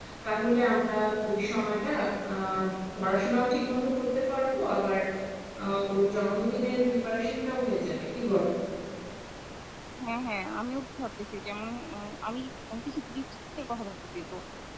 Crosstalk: none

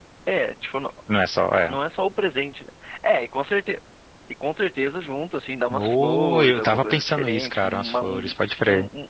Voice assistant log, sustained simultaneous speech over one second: present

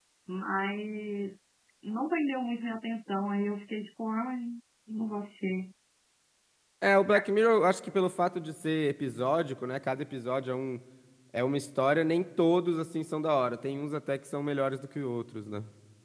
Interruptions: none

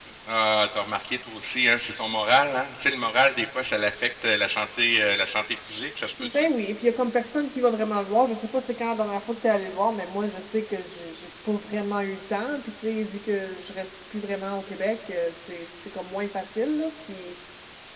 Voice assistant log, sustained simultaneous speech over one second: none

